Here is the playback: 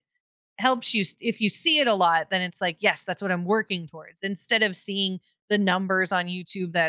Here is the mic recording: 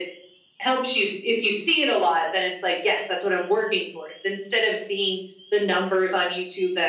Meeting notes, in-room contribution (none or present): none